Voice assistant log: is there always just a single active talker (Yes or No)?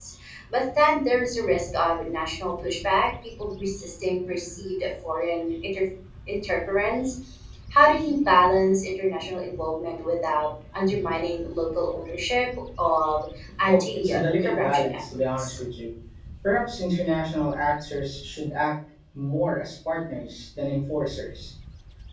No